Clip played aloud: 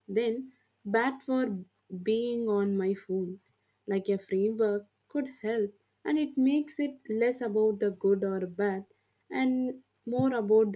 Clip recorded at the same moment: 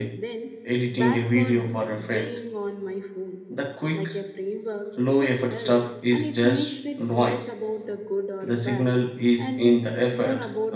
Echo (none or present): present